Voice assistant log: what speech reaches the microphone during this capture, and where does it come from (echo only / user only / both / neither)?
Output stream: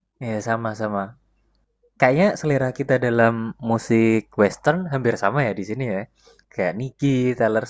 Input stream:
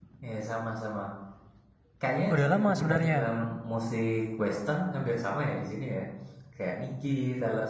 both